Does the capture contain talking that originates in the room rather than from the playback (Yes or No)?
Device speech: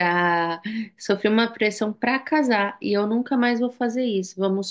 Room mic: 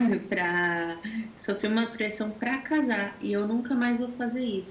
No